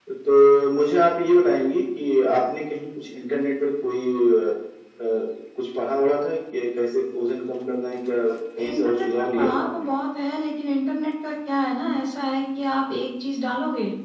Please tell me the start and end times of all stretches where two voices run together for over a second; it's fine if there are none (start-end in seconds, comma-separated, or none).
8.6-9.9